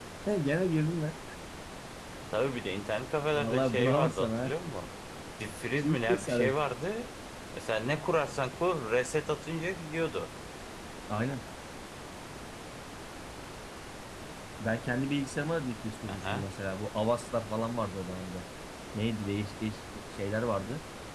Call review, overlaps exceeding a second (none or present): present